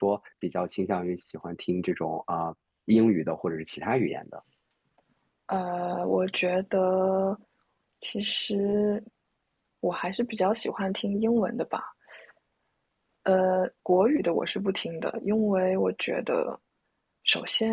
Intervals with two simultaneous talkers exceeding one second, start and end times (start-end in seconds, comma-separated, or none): none